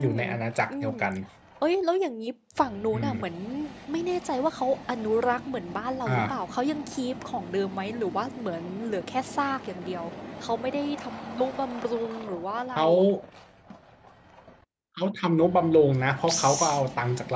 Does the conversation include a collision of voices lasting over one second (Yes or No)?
No